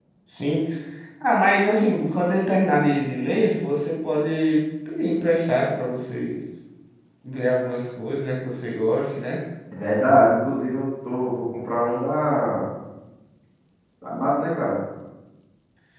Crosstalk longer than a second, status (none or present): none